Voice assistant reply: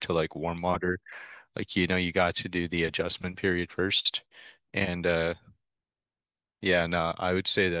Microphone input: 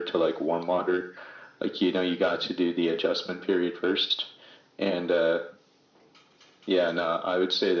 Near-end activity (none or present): none